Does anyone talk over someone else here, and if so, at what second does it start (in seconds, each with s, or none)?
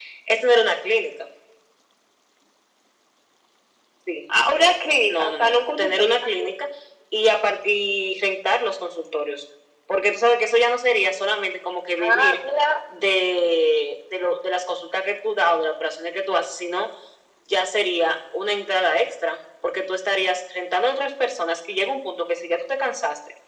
5.1 s